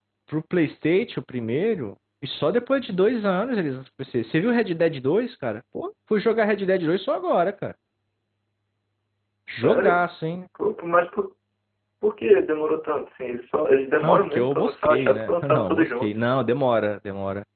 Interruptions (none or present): present